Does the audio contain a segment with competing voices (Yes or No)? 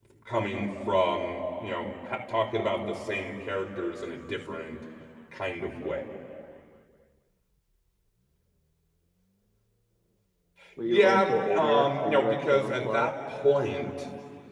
Yes